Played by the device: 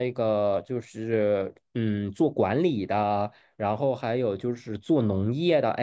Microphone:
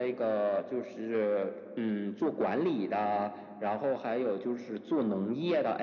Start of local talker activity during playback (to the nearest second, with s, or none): none